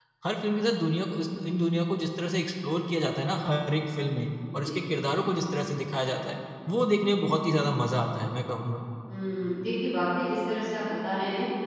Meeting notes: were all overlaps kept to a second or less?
Yes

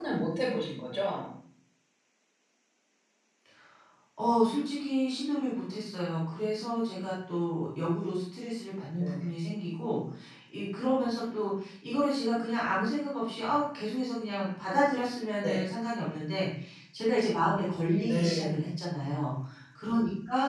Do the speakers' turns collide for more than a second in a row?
No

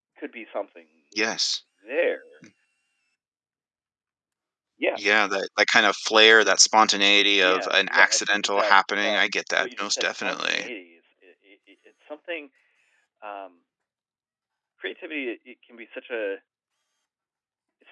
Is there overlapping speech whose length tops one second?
Yes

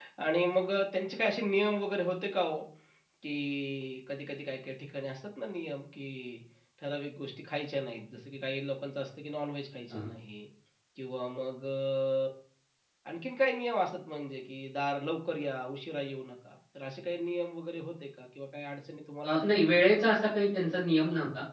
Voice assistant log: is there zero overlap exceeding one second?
Yes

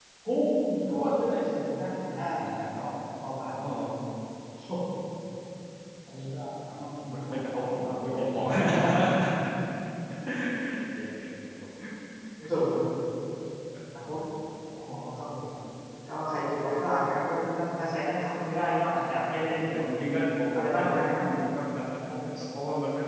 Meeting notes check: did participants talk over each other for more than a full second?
Yes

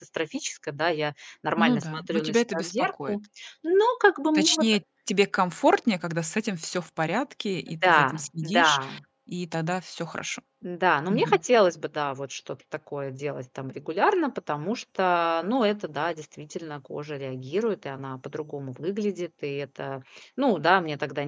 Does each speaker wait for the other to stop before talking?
No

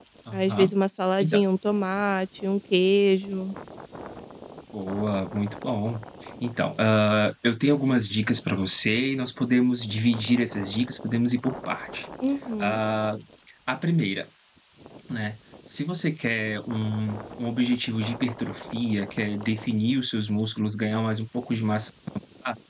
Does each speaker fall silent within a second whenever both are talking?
Yes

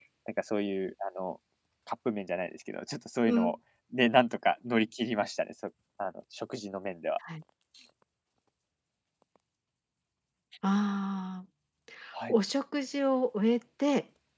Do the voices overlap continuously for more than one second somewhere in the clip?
No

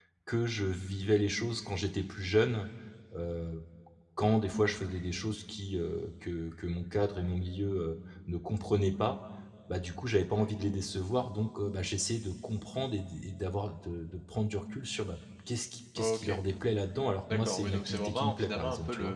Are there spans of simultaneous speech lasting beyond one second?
Yes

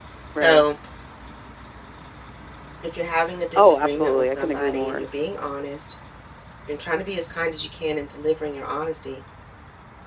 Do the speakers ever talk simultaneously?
Yes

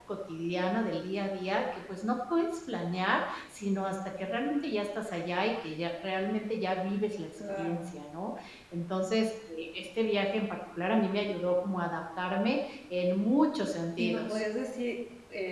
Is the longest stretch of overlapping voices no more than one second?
Yes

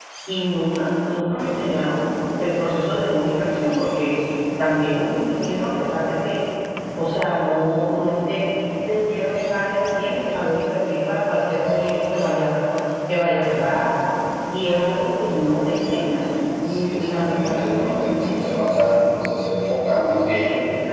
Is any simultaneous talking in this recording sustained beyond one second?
Yes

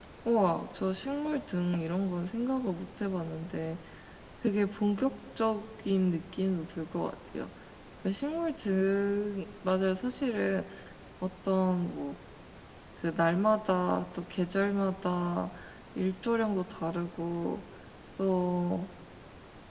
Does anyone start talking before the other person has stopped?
No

